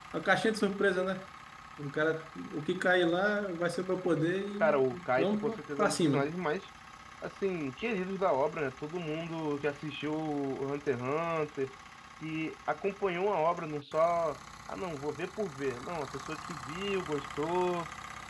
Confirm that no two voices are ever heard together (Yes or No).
No